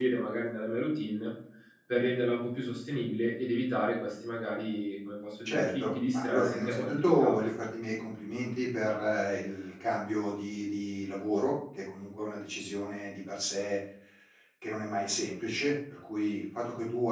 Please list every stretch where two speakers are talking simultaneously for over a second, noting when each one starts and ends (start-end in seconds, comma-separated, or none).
5.5-7.5